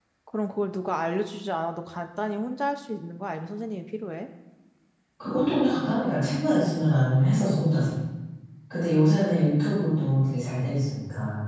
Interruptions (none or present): none